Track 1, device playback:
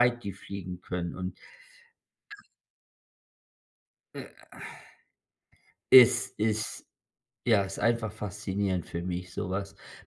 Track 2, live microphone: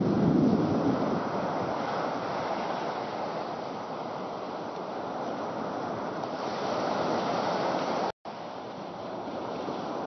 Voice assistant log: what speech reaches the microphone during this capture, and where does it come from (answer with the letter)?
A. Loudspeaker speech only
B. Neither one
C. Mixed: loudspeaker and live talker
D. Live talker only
B